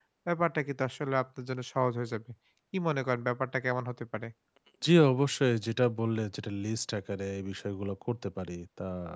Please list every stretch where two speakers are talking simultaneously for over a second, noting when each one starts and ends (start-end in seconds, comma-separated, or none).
none